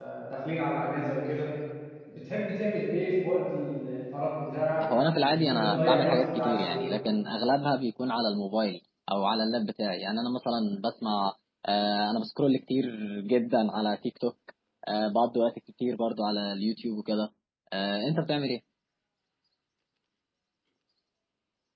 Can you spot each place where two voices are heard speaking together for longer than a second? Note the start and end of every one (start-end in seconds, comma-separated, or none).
5.1-6.9